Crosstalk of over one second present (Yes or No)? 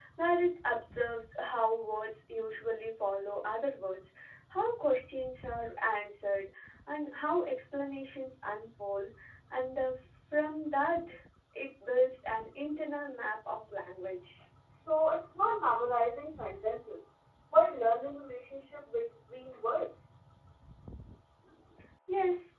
No